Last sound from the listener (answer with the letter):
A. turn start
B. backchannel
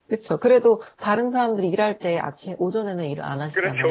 A